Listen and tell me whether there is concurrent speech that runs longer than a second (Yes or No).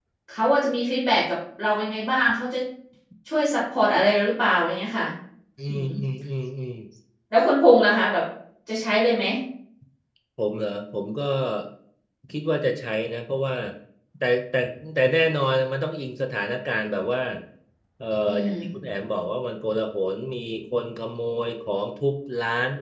No